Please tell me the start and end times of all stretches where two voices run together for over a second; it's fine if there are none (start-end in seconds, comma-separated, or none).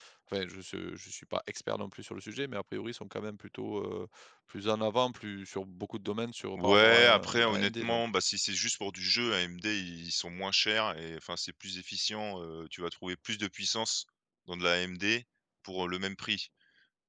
6.6-8.0